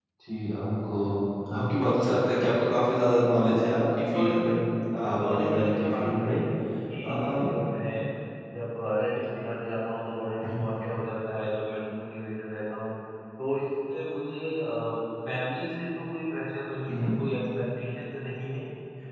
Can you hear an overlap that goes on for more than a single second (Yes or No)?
Yes